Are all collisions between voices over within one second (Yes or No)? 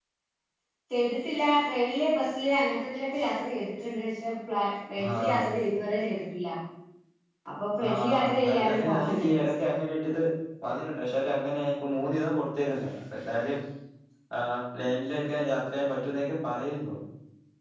No